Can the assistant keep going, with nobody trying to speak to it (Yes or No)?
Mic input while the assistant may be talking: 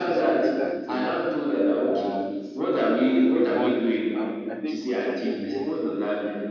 No